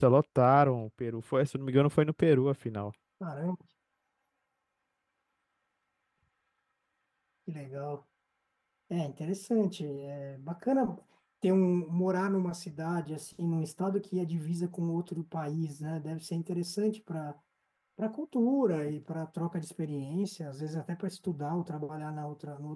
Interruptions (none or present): none